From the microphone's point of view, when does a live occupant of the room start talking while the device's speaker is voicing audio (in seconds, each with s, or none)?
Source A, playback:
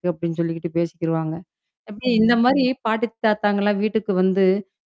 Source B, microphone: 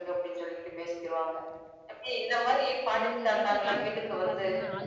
3.0 s